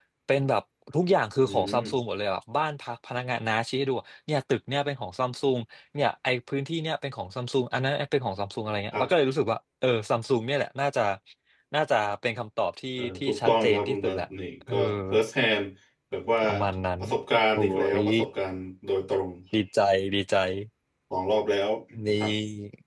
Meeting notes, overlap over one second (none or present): present